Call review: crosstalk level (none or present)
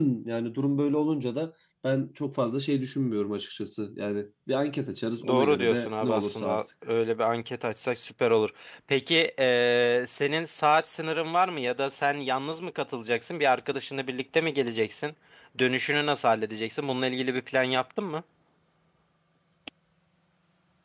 present